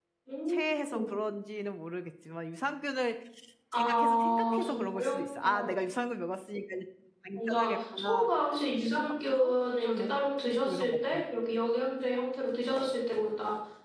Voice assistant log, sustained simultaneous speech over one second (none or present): present